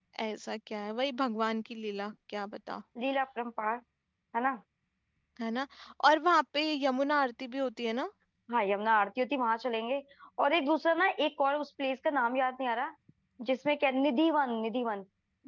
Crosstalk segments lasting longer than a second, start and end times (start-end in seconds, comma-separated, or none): none